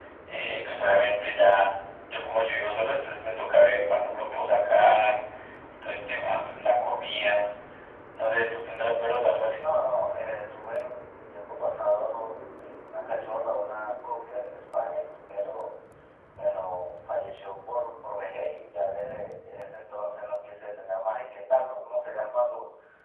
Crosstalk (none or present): none